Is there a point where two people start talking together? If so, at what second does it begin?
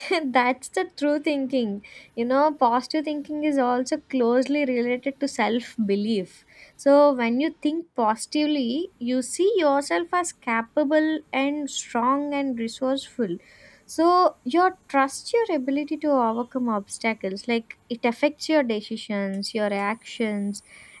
none

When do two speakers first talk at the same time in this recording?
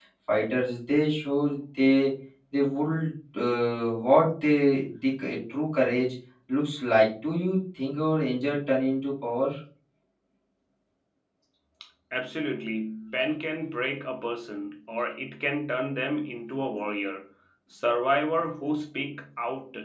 none

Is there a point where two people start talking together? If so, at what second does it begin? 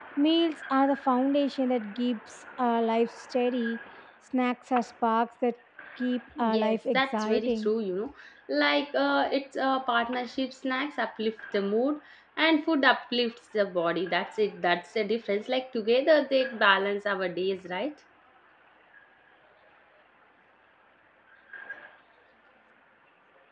6.5 s

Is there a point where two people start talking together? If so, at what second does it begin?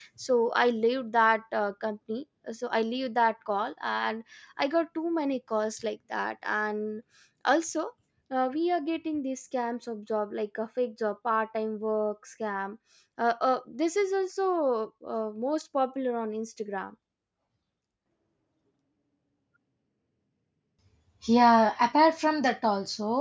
none

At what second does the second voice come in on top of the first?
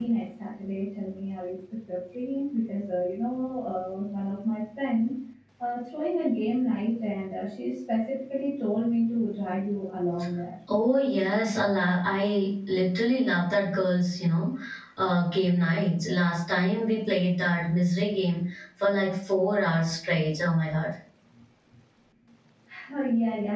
none

